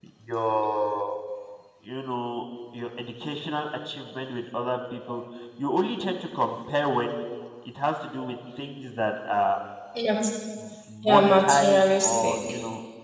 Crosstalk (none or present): present